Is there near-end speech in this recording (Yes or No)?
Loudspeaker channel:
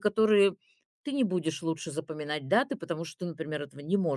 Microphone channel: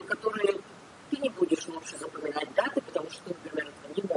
No